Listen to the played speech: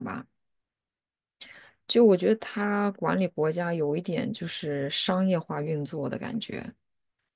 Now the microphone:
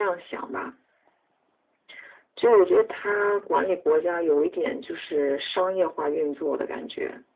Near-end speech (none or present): none